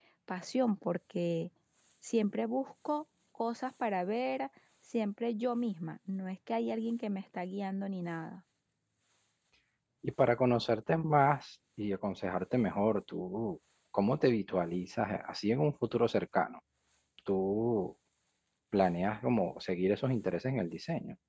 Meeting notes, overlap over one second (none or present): none